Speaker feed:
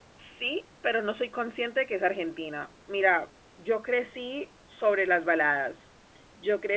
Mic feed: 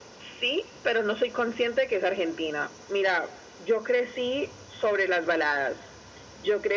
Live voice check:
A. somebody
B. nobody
B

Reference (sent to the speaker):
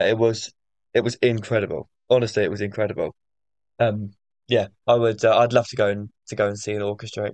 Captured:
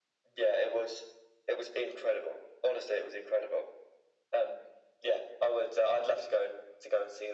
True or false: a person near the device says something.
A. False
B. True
A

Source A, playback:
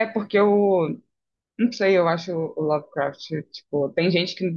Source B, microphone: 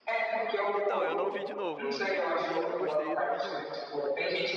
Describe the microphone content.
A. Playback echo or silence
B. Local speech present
B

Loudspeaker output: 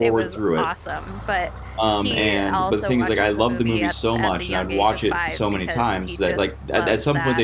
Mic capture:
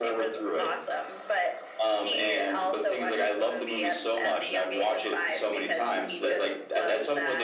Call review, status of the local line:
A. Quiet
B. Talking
A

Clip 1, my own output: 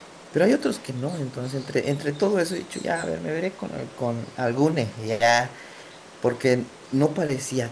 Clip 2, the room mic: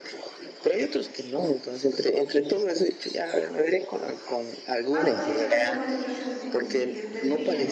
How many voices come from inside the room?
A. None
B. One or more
B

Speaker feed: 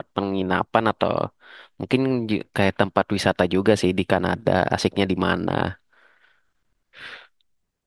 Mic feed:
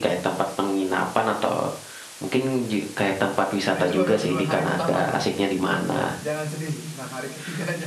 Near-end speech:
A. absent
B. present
B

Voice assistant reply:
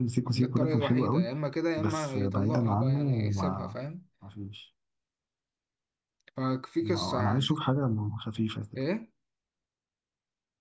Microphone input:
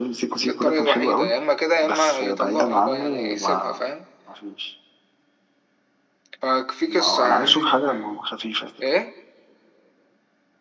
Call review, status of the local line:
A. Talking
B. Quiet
A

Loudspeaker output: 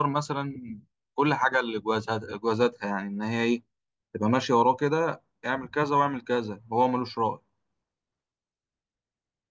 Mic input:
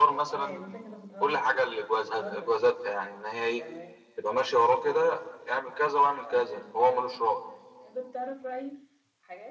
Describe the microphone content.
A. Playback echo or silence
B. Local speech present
B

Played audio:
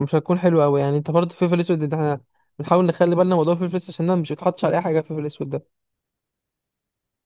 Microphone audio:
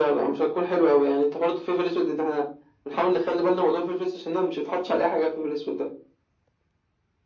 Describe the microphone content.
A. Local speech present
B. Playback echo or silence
B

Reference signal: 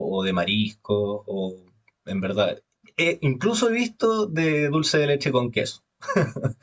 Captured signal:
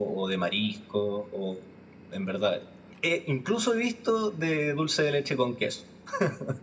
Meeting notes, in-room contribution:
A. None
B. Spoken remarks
A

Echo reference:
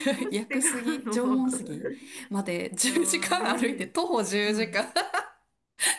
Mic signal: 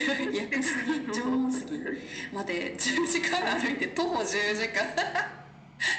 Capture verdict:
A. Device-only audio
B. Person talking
A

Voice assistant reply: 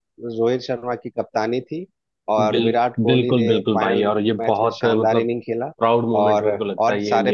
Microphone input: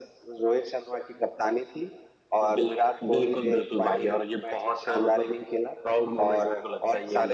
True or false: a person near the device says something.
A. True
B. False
B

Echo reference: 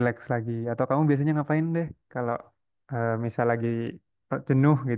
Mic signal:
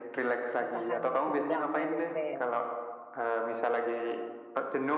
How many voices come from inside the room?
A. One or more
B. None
A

